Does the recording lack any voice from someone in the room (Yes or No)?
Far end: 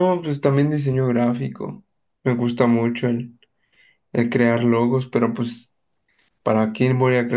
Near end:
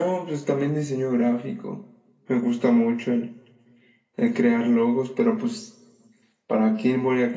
Yes